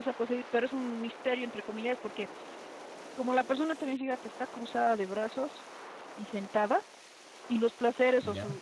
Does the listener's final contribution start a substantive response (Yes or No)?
No